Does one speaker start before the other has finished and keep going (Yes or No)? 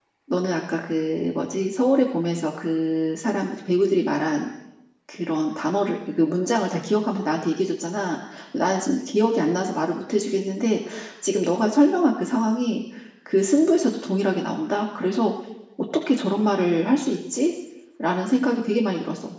No